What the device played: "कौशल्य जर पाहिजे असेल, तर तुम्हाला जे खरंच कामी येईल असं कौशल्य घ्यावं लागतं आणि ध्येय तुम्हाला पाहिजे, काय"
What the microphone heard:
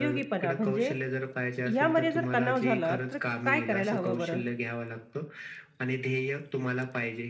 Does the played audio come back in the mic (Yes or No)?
Yes